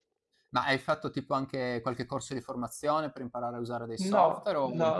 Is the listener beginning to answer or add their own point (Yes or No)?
Yes